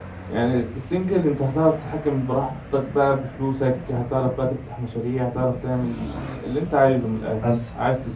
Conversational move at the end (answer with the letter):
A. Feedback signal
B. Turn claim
A